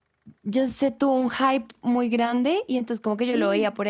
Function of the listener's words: listening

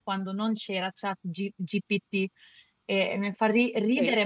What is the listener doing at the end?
taking over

